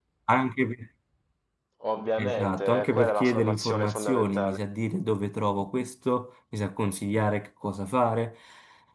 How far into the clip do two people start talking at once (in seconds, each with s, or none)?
2.2 s